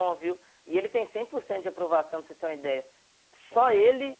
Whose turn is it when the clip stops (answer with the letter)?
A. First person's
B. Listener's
A